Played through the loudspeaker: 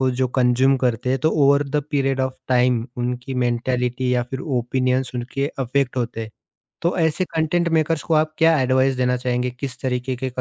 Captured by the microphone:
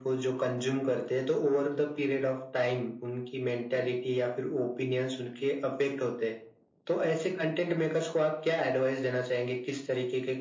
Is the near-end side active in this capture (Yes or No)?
No